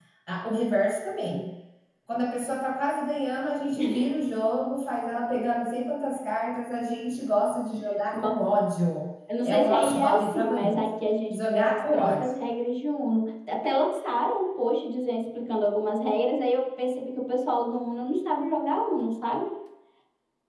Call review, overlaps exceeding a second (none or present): present